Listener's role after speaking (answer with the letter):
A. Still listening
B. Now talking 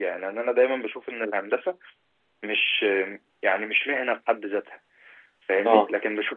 A